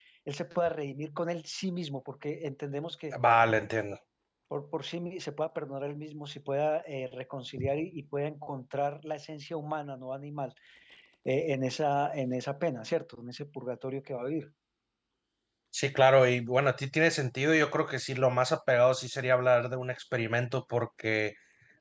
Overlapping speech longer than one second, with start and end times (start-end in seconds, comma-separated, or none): none